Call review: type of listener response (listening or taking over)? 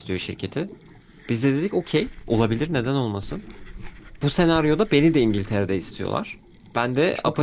listening